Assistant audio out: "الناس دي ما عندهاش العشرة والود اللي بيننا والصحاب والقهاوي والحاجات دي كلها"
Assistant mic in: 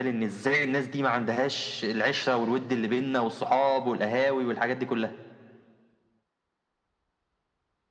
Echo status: present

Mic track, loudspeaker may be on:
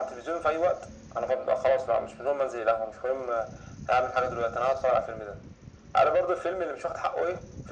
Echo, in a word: present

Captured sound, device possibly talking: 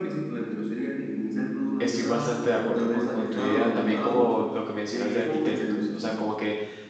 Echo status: present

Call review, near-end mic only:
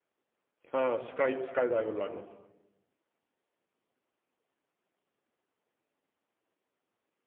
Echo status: none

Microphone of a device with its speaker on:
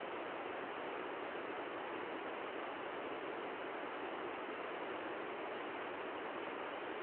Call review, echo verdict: none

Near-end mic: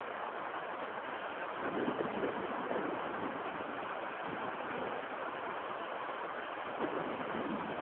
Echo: none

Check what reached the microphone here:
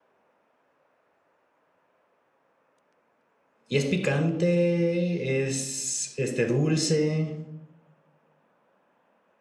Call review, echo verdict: none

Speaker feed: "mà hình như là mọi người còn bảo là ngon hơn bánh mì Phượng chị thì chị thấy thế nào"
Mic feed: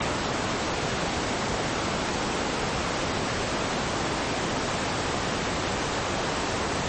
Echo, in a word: none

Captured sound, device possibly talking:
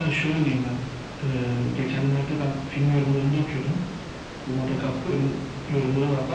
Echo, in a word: present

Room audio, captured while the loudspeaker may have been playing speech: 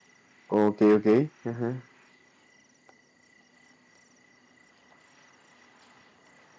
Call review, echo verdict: none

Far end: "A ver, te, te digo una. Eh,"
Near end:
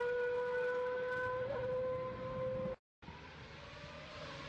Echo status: none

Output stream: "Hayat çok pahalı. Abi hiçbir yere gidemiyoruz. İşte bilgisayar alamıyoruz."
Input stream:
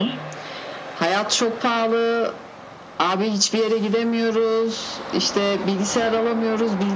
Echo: present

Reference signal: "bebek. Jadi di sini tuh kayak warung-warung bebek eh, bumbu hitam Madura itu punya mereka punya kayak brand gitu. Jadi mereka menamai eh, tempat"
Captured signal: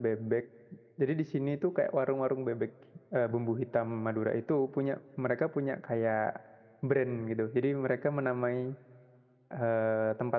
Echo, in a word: present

